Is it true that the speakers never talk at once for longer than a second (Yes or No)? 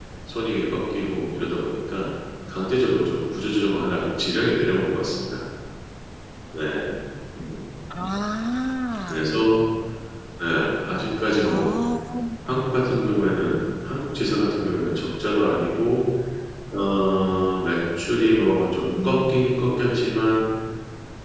Yes